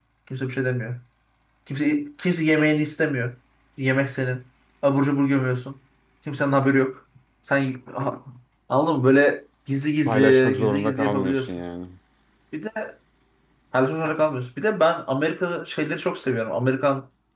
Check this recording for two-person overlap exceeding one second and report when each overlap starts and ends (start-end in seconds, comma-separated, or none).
10.1-11.5